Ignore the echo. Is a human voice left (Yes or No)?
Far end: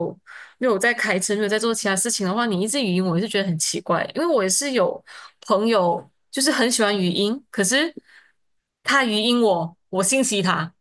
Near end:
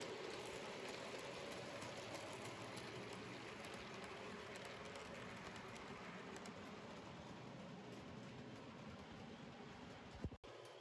No